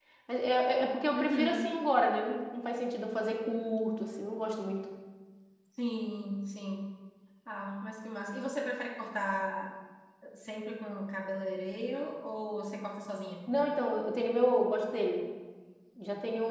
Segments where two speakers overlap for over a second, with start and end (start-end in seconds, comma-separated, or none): none